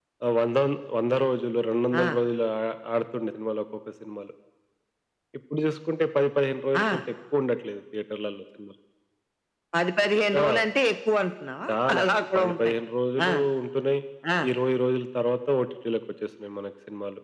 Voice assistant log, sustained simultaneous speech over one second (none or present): none